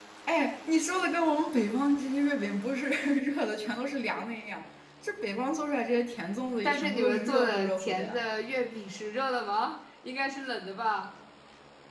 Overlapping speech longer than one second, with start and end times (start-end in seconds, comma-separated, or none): 6.6-8.2